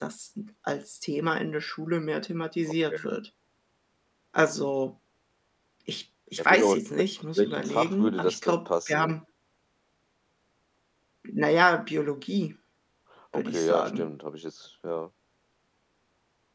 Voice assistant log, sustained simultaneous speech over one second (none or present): present